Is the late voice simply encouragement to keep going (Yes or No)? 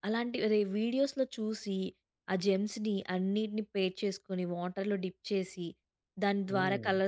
Yes